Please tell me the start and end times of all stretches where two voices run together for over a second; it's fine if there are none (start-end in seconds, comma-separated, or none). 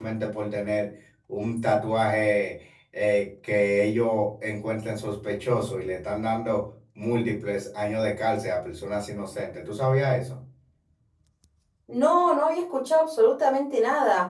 none